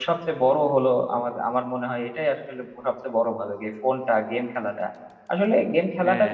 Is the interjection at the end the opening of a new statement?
No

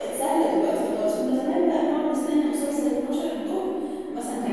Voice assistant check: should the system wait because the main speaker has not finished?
No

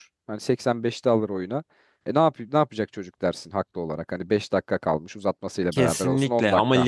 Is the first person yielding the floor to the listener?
Yes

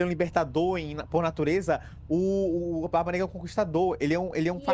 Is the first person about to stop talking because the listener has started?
Yes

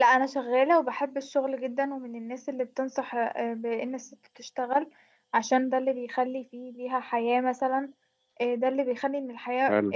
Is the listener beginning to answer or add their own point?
No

